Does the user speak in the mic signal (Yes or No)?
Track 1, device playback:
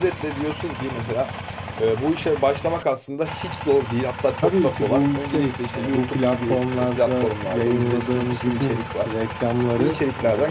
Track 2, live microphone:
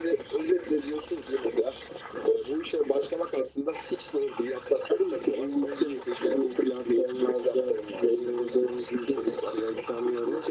No